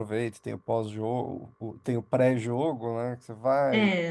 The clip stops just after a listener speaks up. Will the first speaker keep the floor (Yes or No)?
No